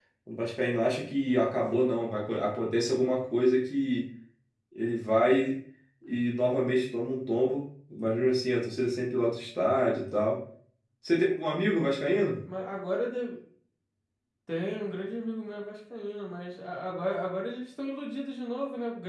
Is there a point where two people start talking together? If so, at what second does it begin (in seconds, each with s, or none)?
none